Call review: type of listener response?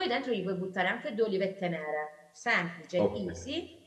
listening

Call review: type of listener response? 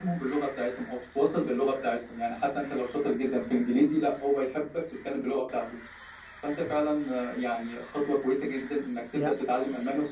listening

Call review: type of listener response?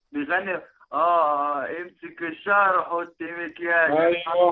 taking over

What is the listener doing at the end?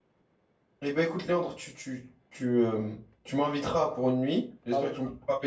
listening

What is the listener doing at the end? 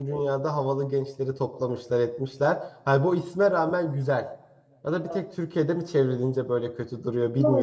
taking over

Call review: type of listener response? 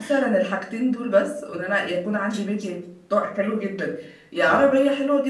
listening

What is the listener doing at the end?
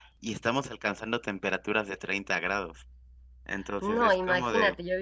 taking over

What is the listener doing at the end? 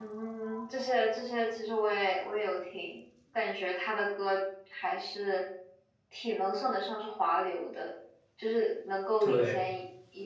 listening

